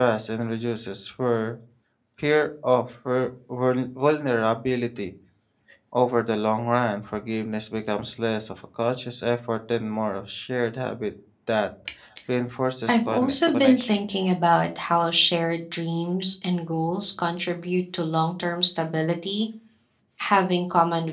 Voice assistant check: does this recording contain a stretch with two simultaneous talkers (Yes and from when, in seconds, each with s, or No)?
Yes, from 12.9 s